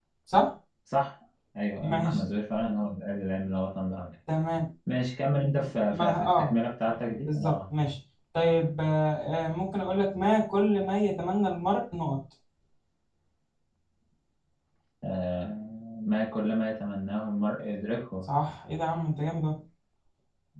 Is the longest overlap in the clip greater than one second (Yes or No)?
Yes